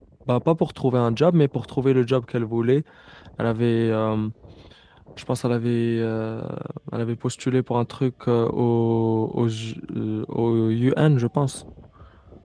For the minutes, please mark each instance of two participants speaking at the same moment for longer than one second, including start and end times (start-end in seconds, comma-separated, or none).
none